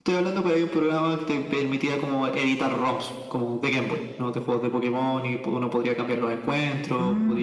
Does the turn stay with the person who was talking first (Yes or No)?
No